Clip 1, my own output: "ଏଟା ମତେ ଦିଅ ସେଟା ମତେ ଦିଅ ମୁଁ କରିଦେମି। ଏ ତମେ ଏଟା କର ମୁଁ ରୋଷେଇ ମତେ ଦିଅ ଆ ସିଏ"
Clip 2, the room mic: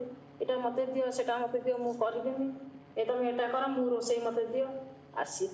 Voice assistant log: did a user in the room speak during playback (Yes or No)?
No